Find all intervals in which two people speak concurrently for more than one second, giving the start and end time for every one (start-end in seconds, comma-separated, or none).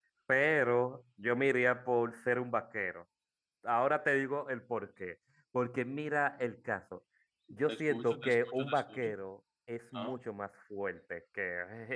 7.7-9.1